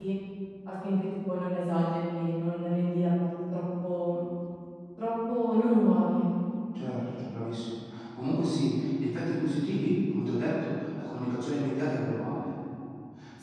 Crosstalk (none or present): none